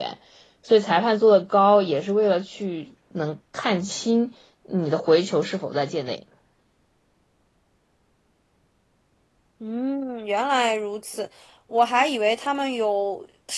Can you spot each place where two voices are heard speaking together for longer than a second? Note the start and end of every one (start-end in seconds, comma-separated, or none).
none